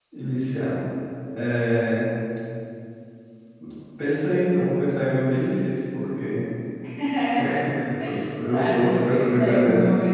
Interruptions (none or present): present